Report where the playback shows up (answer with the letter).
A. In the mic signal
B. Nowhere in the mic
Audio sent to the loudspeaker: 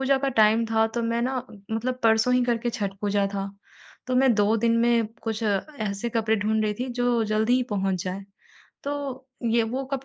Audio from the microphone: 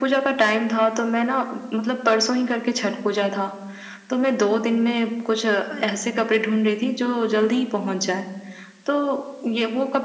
A